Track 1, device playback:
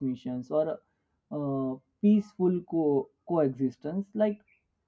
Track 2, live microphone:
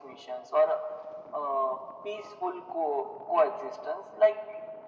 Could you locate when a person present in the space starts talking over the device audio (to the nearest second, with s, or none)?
none